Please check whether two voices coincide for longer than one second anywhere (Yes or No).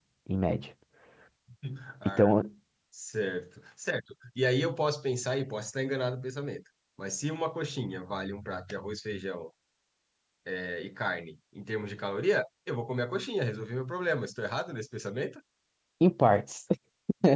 No